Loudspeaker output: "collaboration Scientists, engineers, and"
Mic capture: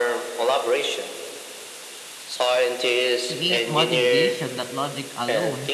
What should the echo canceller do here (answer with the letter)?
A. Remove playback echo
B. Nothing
A